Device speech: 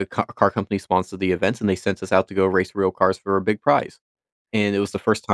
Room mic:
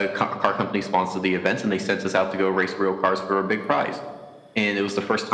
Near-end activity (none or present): none